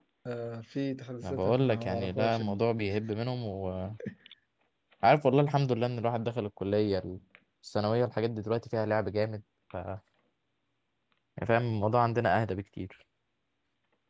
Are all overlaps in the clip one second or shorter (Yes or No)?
No